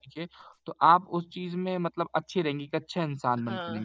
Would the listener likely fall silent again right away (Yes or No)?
No